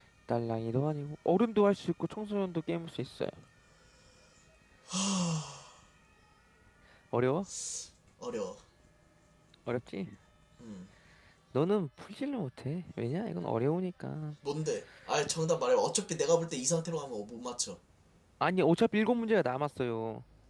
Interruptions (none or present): none